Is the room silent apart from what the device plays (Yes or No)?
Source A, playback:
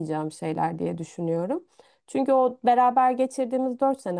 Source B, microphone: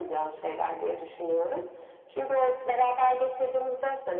Yes